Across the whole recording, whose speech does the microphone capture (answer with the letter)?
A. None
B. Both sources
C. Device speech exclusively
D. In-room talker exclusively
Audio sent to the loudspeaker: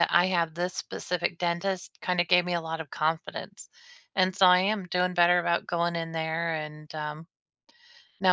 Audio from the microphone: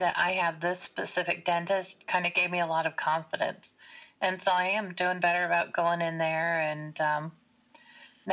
C